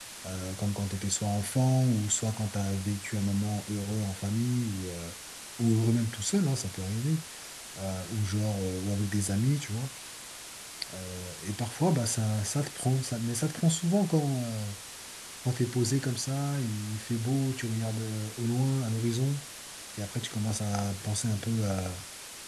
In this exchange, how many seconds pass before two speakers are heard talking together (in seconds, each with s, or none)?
none